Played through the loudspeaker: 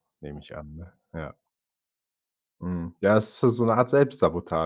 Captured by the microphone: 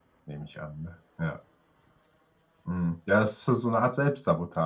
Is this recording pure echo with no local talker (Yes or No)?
Yes